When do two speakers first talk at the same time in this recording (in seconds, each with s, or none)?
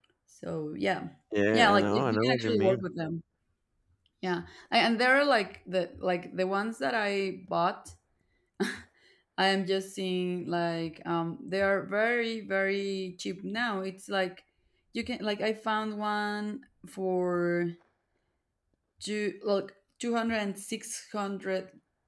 1.5 s